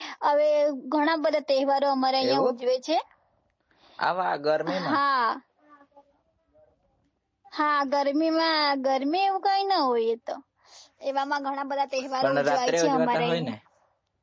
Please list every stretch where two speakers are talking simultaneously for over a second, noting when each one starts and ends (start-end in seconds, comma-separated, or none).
12.2-13.5